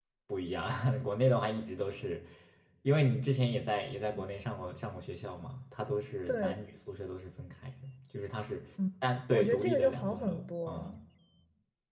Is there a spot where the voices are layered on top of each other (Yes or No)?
Yes